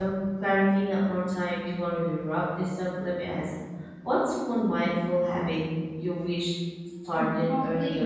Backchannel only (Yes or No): No